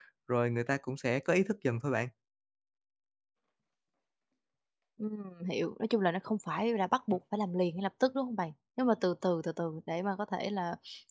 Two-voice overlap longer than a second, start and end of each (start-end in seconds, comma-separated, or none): none